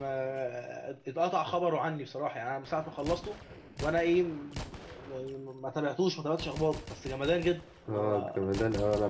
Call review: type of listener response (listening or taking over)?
taking over